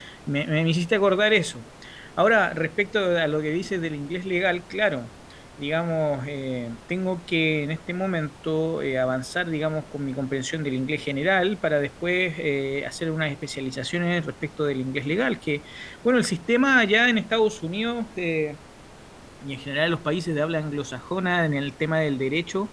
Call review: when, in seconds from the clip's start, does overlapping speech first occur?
none

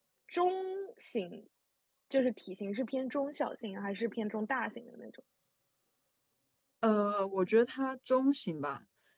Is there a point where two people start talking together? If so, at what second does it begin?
none

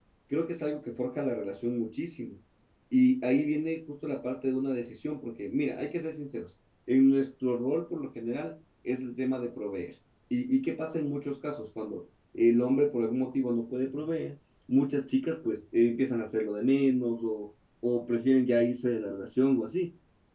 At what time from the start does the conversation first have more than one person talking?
none

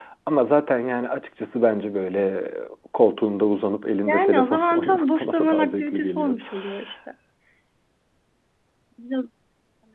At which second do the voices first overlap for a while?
4 s

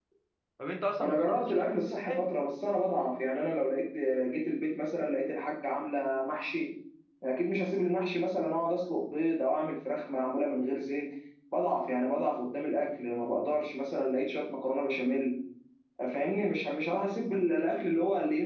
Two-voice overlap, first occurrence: 1 s

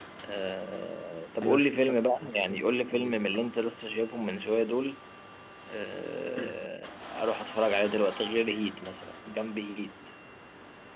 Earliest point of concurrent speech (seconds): 1 s

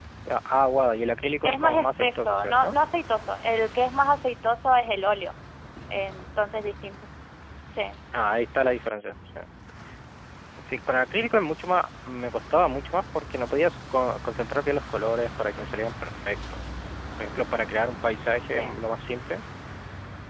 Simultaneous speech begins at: 1 s

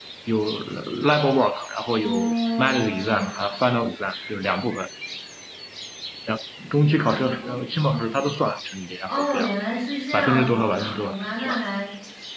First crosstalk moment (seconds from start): 2 s

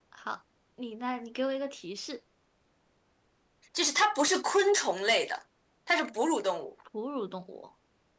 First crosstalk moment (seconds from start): none

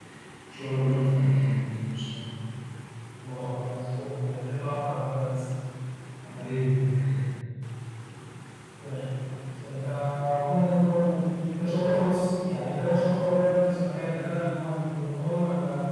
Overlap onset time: none

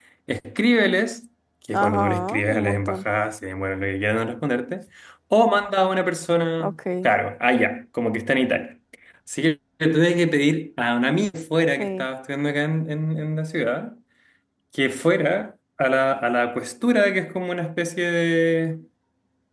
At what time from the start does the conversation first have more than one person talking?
2 s

